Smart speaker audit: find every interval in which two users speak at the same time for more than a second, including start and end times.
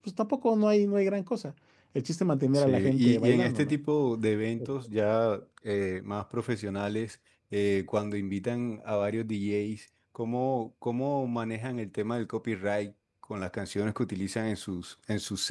2.5-3.8

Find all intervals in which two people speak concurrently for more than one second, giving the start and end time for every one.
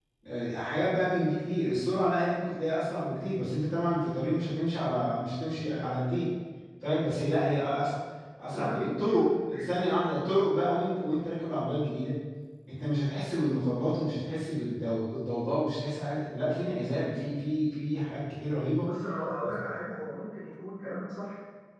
8.5-10.0

